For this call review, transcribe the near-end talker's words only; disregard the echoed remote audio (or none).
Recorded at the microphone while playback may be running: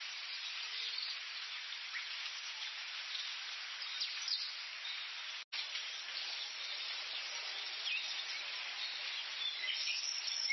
none